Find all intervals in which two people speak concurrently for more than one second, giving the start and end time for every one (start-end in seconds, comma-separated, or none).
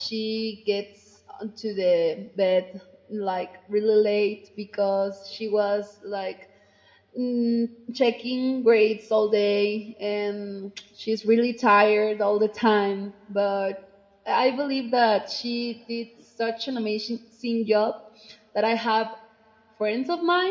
none